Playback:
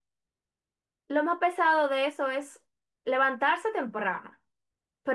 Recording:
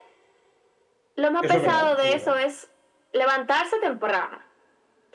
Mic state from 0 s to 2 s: both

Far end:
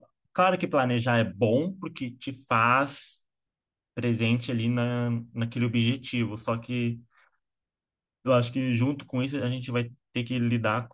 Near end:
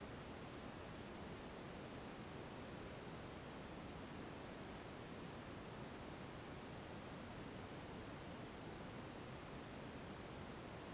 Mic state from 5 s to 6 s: neither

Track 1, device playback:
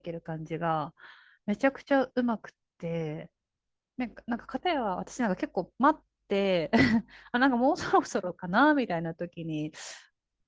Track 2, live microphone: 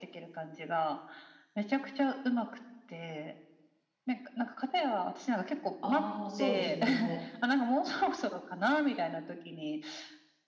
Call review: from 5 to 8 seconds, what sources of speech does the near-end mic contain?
both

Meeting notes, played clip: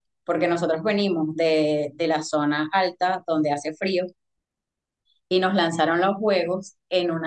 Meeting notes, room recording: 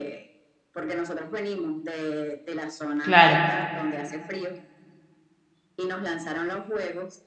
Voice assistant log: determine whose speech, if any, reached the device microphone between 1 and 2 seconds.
echo only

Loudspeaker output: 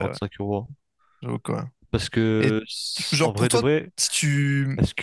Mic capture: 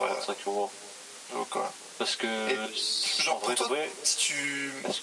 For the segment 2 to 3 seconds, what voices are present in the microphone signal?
echo only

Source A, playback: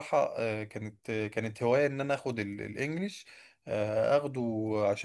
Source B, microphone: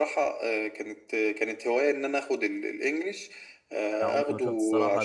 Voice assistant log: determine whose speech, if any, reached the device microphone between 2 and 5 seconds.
both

